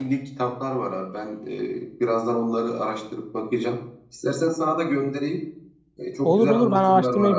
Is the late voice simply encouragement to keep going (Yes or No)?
No